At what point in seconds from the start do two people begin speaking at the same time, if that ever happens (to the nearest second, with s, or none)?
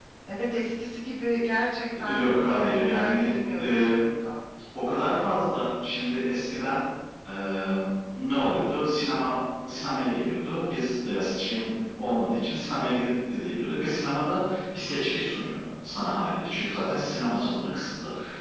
2 s